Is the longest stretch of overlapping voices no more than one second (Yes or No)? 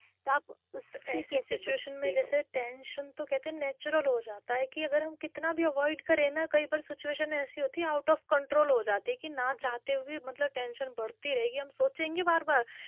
No